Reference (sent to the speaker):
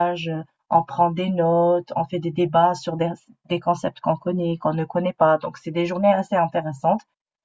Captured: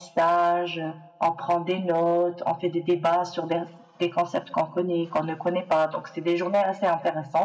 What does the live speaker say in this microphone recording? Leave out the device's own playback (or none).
none